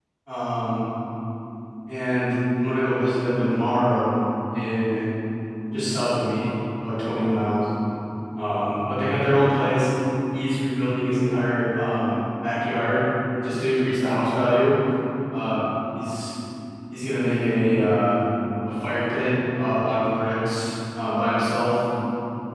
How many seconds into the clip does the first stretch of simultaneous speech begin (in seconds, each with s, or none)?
none